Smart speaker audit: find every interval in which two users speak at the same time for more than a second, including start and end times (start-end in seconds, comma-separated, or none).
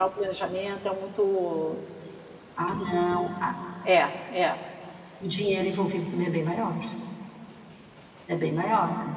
none